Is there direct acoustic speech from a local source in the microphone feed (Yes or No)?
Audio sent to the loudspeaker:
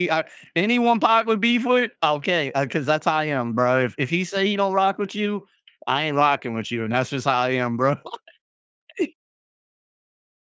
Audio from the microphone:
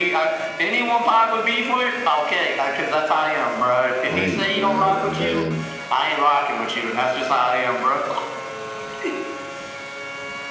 Yes